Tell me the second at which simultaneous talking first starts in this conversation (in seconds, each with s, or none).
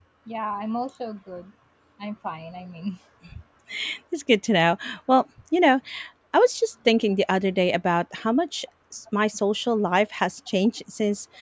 none